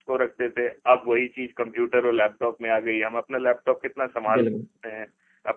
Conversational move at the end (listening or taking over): listening